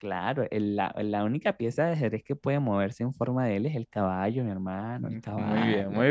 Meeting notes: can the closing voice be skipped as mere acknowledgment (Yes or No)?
No